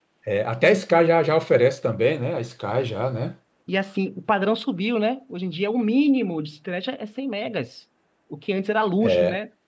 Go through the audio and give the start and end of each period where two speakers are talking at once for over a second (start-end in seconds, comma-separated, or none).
none